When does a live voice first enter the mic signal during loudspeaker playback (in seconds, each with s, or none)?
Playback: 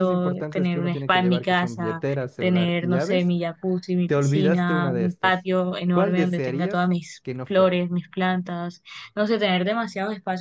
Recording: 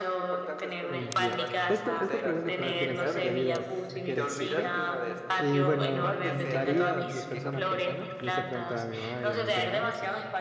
0.9 s